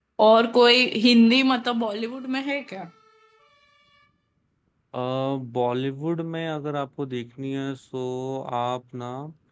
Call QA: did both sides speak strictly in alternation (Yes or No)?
Yes